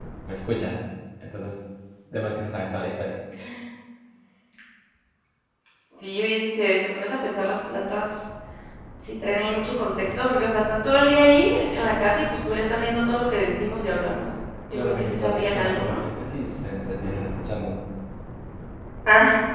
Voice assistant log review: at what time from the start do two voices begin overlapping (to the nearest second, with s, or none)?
15 s